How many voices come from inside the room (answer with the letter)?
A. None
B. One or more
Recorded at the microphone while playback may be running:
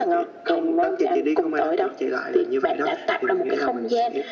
A